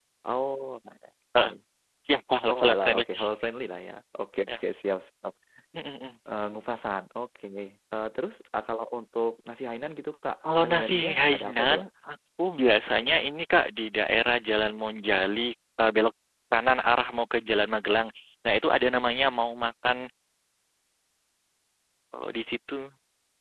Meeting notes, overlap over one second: present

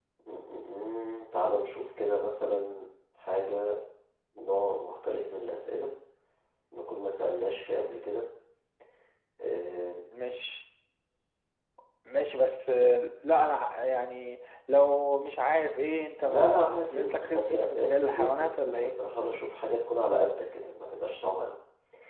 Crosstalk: present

